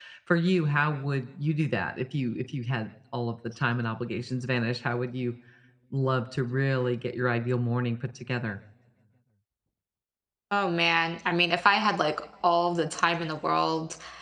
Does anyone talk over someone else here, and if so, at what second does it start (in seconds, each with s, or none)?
none